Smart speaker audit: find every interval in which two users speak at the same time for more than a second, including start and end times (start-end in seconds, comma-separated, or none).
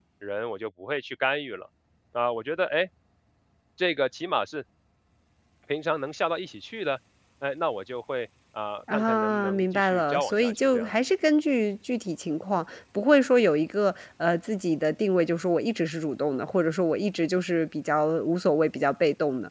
8.9-10.9